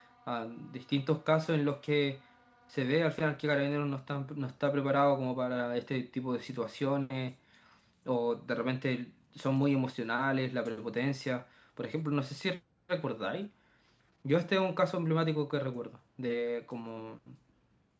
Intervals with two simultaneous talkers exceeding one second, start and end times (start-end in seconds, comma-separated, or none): none